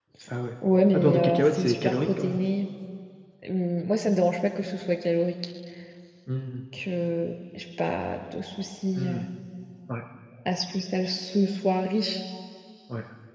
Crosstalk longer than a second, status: present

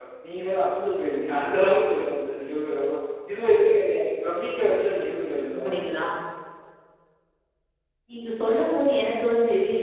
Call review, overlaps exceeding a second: none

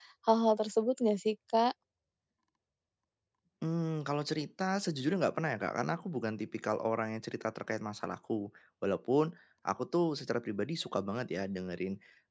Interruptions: none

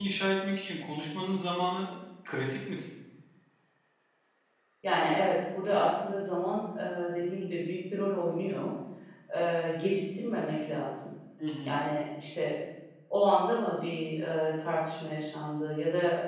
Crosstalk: none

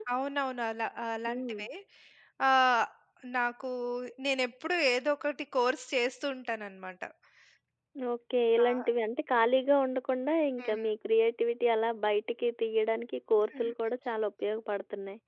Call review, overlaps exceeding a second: none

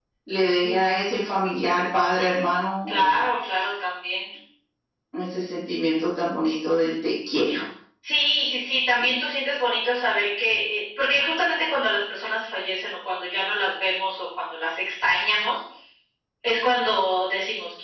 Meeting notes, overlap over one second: none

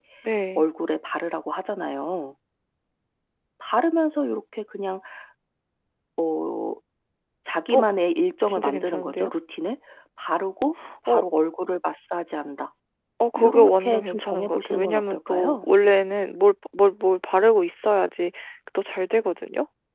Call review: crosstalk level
present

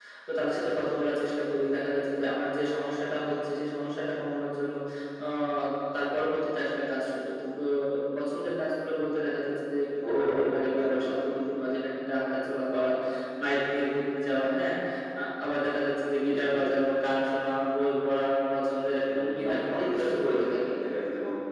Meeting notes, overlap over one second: present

